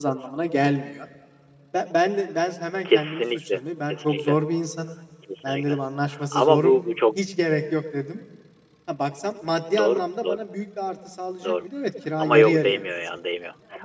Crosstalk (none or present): present